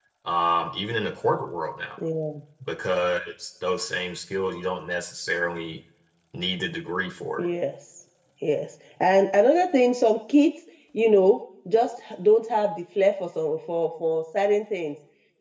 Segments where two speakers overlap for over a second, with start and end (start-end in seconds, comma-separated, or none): none